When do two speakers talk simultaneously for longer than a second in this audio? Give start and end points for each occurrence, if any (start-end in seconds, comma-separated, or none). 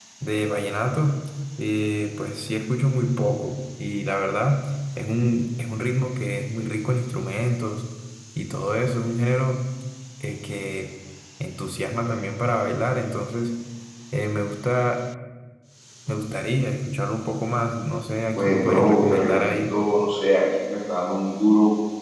18.4-19.8